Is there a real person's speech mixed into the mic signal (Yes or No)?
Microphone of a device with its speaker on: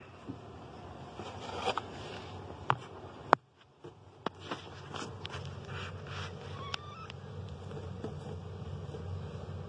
No